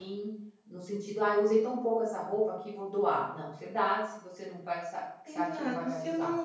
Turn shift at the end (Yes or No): Yes